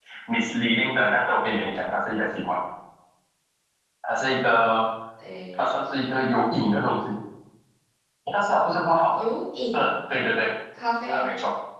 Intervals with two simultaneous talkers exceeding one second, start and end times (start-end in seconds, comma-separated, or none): none